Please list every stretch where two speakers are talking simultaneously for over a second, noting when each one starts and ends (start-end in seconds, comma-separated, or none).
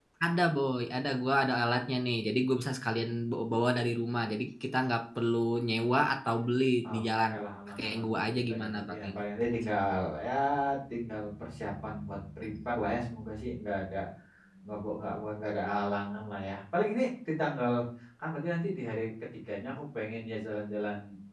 7.8-9.2